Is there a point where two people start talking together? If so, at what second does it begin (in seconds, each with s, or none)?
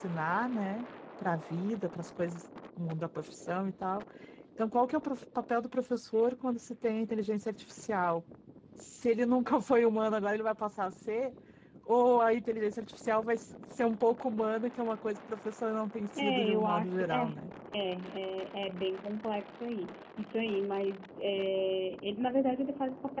16.2 s